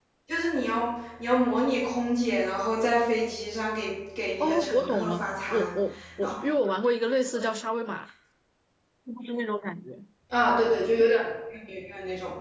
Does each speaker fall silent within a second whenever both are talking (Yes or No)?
No